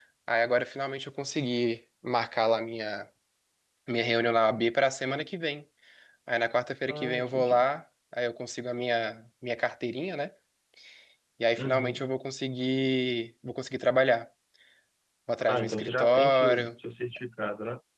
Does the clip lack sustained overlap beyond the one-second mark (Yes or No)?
No